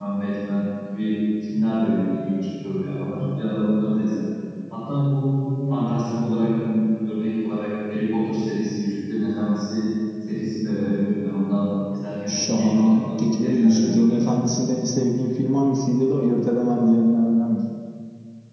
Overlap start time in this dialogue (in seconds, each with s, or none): 12.2 s